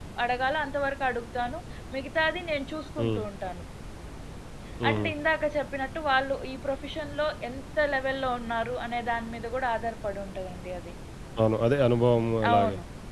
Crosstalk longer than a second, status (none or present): none